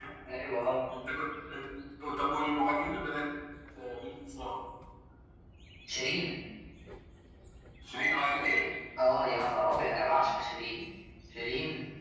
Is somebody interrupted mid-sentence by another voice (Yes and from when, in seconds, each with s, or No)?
No